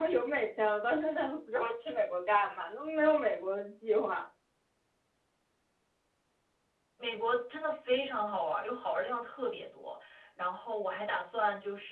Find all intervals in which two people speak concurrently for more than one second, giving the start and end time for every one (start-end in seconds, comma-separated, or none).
none